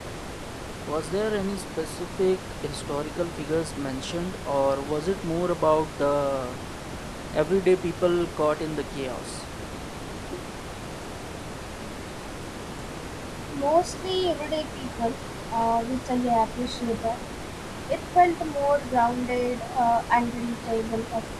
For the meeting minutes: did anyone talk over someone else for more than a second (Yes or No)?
No